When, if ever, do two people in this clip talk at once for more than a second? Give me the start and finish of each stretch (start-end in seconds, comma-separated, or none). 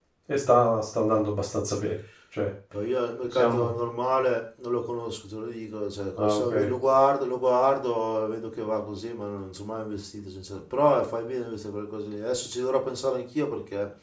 none